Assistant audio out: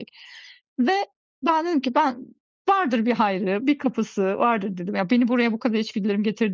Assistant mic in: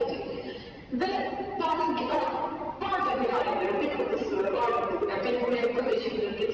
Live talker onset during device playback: none

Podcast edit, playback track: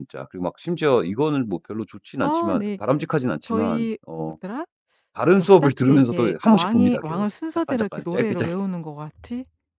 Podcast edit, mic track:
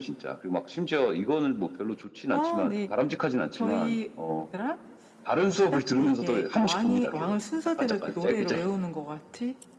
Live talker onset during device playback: none

